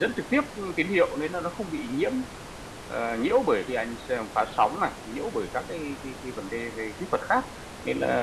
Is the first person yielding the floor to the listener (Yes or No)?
No